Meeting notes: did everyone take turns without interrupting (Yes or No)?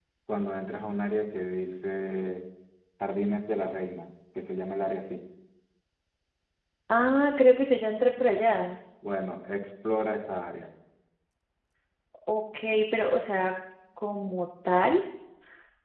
Yes